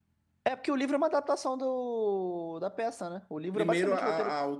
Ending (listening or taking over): taking over